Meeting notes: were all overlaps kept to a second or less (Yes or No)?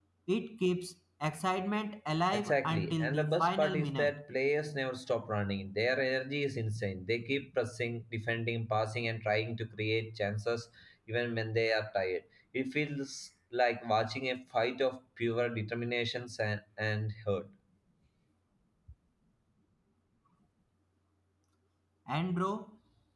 No